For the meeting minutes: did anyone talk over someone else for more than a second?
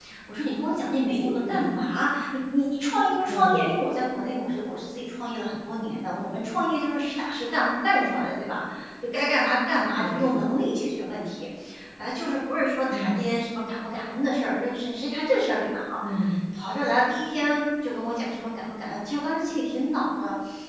No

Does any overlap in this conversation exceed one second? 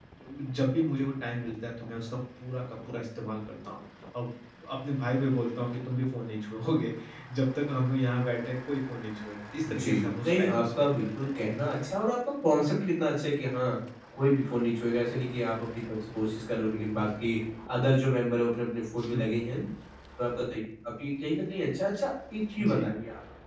Yes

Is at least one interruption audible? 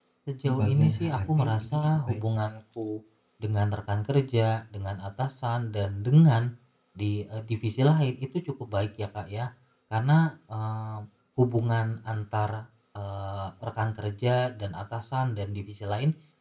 Yes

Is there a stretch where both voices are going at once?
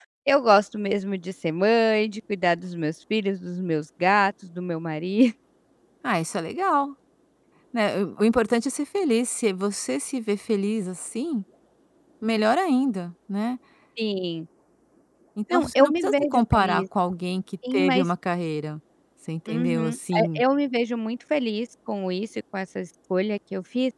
Yes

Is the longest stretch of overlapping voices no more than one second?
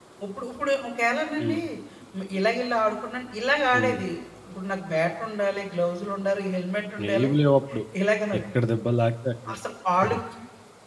Yes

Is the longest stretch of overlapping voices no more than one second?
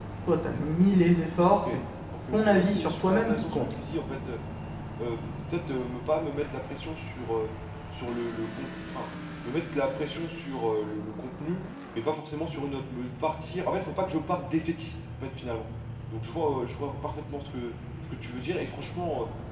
No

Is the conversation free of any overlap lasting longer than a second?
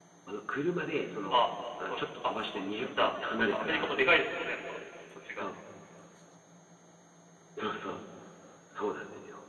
No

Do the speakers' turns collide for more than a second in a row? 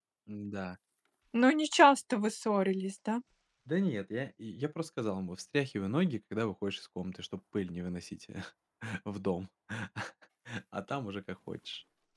No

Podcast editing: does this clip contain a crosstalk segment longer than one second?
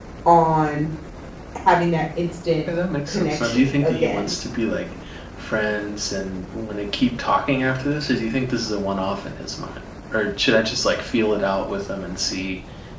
Yes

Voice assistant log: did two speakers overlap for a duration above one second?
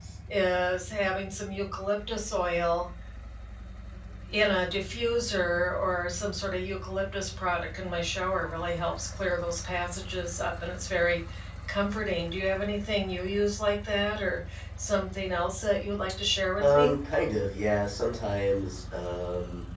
No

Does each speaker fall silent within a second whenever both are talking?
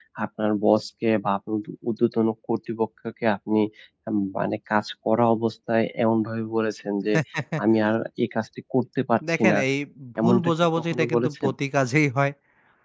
No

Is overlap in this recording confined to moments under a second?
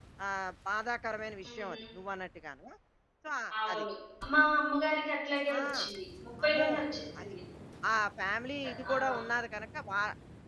Yes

